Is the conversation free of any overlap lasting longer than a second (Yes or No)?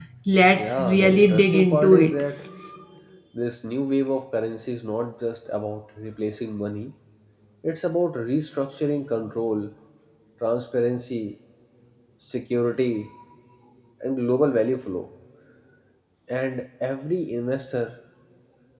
No